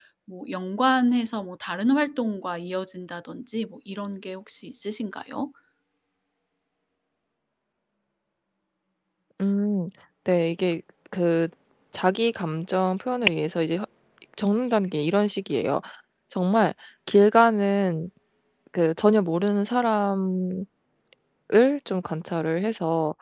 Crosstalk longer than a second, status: none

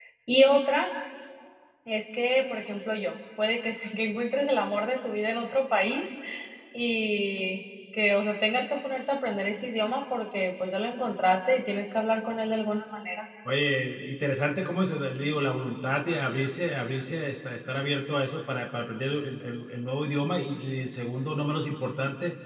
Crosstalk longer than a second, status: none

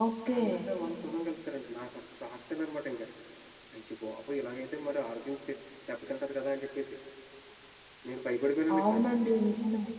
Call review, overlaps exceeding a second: none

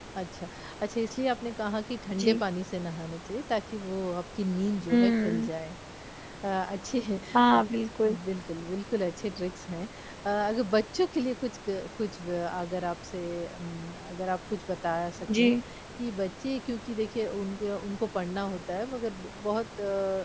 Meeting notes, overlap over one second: none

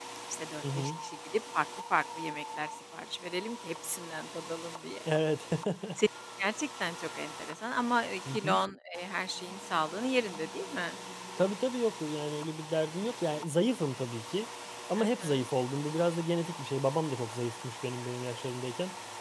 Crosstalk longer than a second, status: none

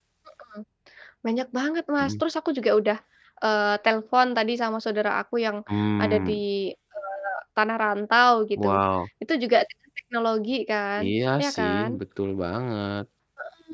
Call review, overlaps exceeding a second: none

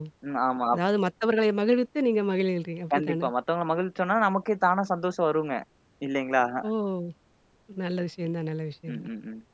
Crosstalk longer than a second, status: none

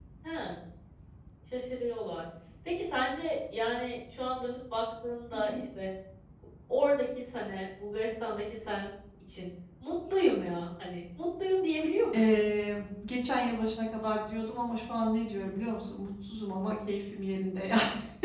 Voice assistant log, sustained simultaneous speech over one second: none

